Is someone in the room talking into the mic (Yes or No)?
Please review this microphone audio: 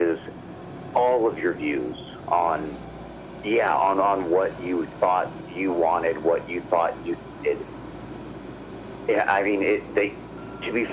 No